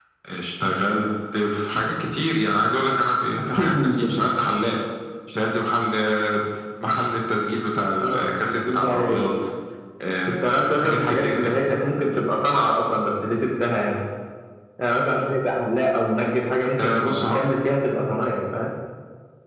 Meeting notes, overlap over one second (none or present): present